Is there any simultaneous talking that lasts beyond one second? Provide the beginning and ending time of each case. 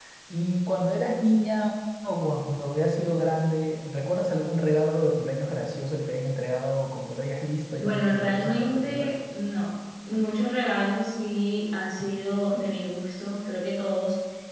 7.8-9.1

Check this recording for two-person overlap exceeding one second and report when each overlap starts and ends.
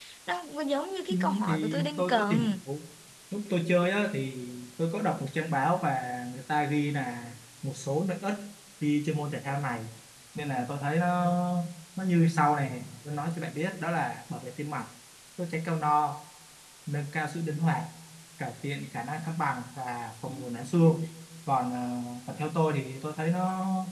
1.1-2.5

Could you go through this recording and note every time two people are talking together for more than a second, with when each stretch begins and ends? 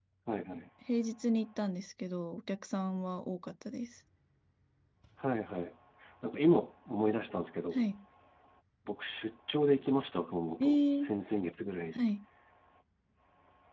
none

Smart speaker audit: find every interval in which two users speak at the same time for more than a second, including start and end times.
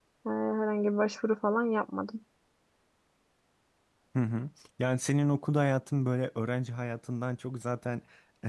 none

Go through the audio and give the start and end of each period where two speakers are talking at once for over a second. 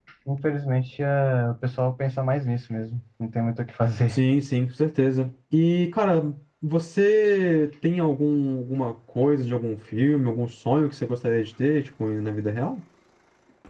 none

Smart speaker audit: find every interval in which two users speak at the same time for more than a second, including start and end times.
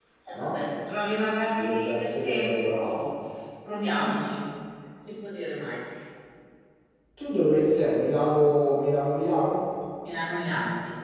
1.6-2.8

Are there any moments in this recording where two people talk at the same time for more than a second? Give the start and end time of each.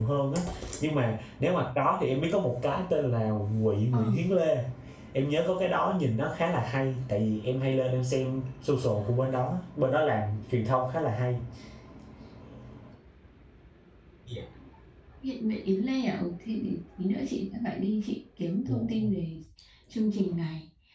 none

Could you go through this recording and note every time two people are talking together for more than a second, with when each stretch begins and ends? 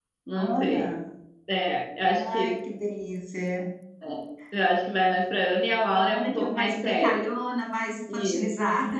6.0-7.2

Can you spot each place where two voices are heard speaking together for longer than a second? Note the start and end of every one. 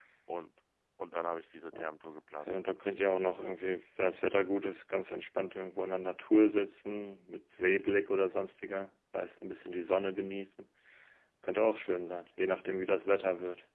none

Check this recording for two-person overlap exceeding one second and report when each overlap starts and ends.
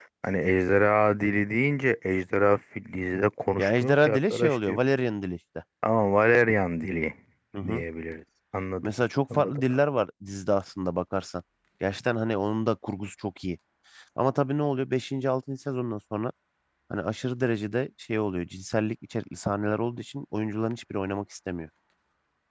3.6-4.8

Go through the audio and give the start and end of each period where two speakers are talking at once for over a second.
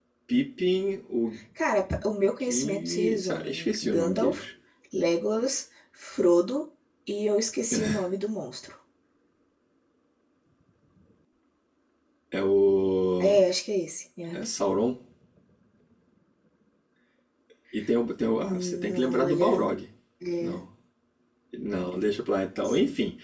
2.5-4.4, 18.5-19.7

